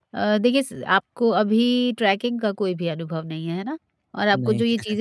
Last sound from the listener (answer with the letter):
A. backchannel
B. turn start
A